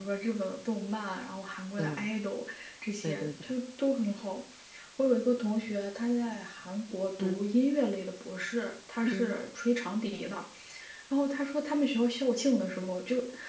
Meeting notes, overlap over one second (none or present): none